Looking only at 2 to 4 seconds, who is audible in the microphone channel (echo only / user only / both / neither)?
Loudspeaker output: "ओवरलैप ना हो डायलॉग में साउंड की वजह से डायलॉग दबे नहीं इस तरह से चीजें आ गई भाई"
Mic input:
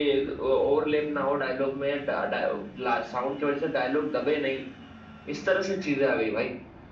echo only